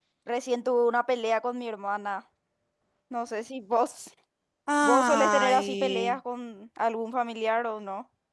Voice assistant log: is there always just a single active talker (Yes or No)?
No